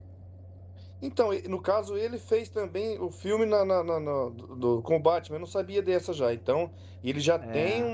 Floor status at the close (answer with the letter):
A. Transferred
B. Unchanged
B